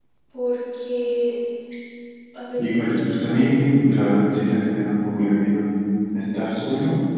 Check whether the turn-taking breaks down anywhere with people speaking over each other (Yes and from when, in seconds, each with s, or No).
Yes, from 2.6 s